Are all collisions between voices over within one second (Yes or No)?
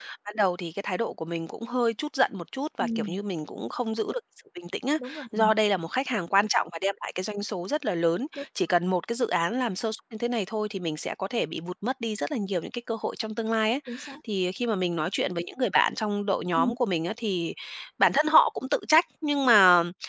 Yes